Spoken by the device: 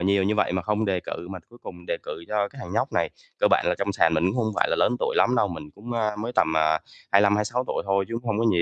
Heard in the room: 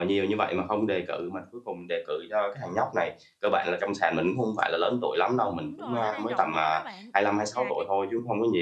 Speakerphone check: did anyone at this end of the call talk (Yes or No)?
Yes